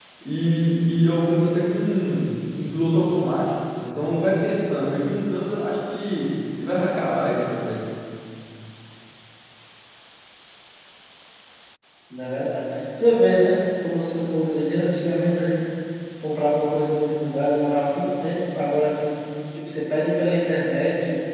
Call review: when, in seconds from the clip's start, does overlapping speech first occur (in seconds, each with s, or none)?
none